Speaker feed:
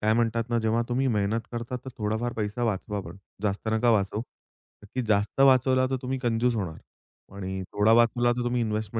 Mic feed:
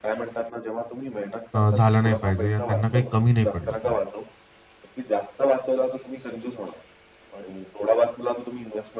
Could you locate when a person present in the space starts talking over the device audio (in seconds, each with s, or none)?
1.5 s